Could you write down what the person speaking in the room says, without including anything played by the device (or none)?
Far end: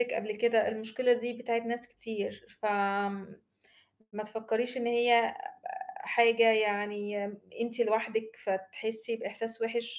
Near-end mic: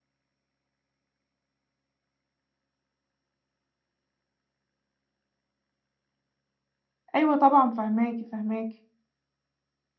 أيوه طبعًا، فاهماكِ، فاهماكِ.